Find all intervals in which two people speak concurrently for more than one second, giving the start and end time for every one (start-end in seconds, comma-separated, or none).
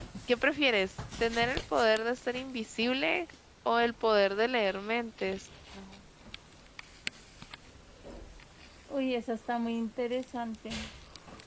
none